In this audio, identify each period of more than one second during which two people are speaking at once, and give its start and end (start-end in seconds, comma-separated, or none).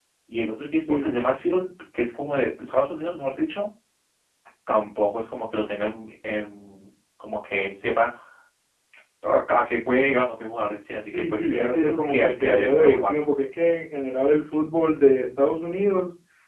11.1-13.3